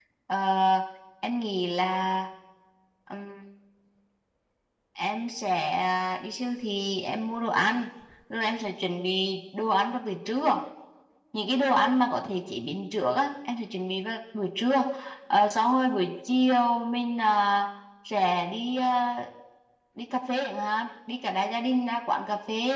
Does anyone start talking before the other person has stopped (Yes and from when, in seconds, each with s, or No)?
No